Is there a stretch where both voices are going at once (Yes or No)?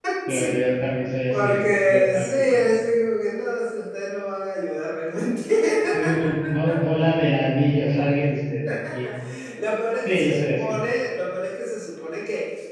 Yes